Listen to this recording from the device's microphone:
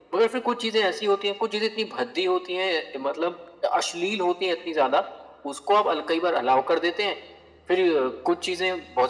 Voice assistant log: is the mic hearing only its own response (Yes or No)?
Yes